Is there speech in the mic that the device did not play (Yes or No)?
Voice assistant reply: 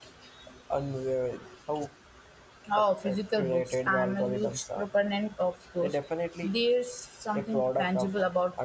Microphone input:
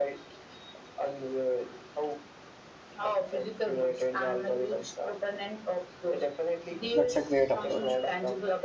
Yes